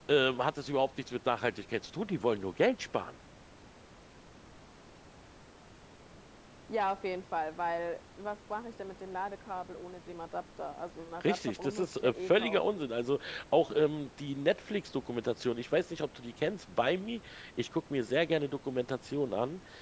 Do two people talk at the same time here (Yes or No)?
Yes